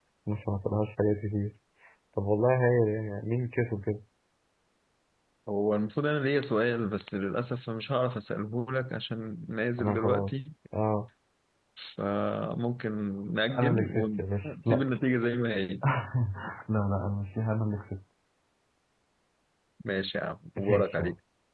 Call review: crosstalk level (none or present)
present